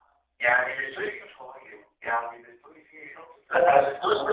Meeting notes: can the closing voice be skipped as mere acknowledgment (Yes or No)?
No